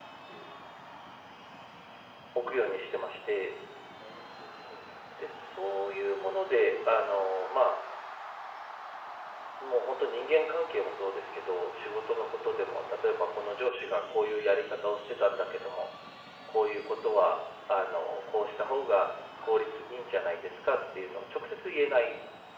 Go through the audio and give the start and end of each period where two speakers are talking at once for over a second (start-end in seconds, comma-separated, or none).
none